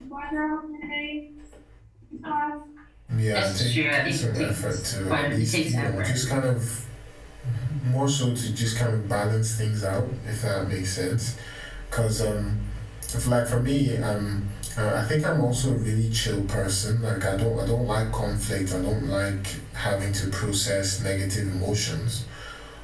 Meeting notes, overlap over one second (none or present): present